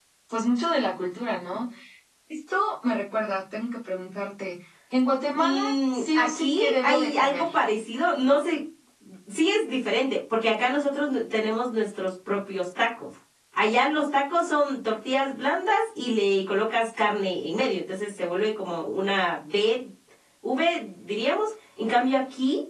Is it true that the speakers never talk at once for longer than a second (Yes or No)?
No